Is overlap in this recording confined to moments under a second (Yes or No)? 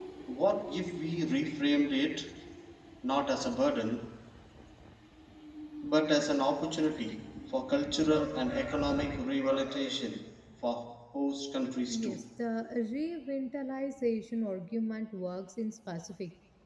Yes